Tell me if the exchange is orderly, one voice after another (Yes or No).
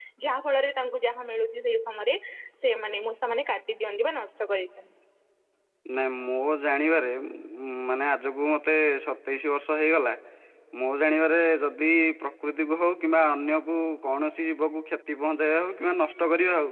Yes